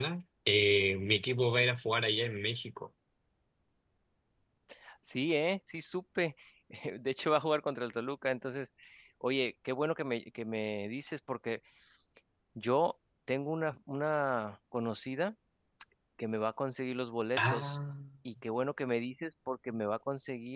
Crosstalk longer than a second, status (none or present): none